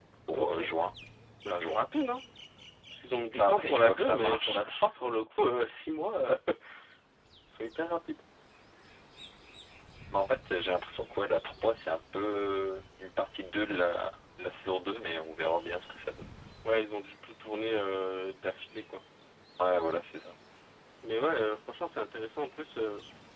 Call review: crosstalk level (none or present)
present